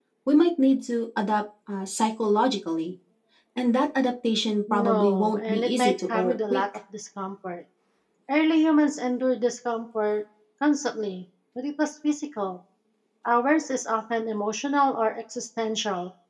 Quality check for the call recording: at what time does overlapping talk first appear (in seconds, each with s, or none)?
4.7 s